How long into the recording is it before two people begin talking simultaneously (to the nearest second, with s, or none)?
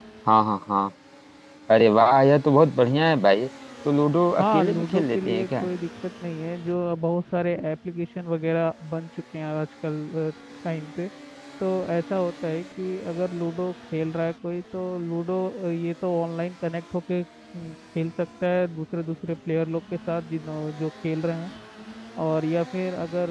4 s